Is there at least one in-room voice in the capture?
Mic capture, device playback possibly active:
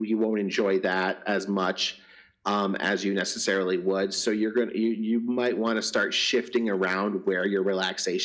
No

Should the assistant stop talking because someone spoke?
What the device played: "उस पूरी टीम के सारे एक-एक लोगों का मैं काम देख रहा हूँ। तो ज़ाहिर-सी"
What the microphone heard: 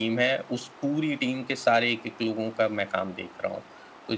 No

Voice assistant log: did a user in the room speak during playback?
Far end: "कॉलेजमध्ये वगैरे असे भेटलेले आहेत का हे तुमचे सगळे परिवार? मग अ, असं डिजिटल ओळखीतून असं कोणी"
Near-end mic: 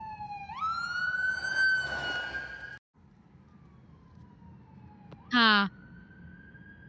Yes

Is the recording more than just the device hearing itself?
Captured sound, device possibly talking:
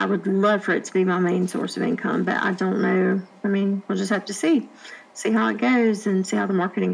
No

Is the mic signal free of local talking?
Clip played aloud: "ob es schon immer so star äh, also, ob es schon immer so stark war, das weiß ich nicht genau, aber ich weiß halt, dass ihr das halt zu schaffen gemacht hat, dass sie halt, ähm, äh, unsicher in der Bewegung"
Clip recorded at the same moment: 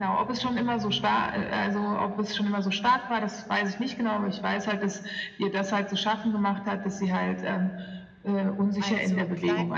No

